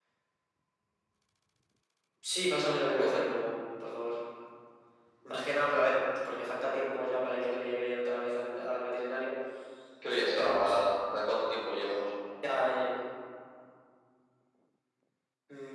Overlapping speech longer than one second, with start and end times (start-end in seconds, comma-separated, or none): none